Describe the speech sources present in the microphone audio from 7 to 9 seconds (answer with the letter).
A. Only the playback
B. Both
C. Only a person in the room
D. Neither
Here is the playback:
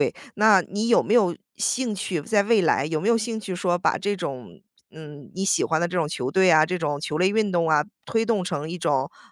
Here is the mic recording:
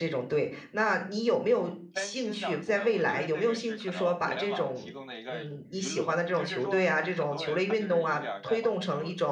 B